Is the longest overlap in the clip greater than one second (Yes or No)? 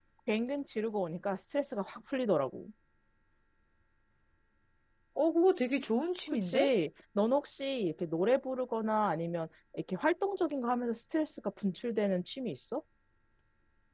No